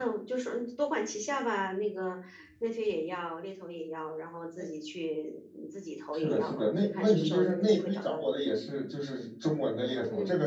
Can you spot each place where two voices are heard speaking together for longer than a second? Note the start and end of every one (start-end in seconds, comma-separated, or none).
6.1-8.3